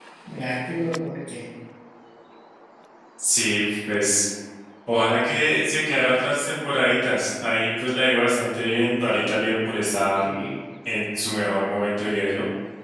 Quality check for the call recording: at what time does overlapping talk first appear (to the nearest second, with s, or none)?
none